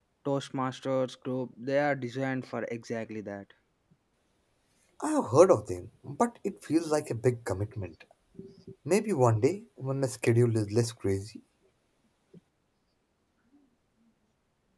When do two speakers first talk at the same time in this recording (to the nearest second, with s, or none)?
none